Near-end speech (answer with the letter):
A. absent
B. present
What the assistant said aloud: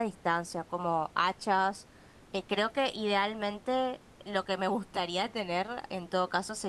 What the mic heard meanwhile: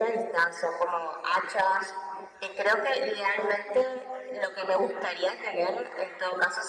A